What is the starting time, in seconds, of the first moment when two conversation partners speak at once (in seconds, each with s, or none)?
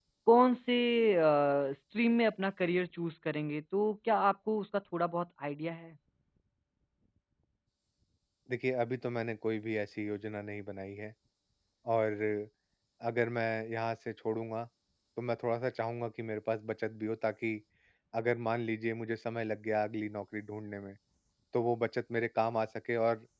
none